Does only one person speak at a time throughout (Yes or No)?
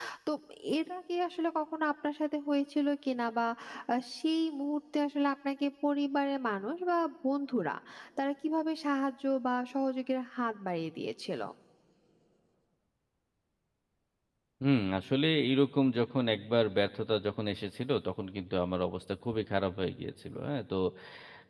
Yes